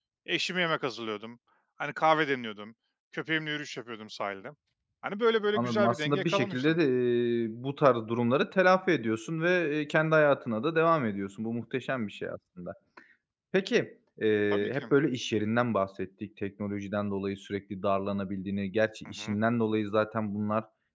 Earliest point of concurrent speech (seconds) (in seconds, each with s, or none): 5.5 s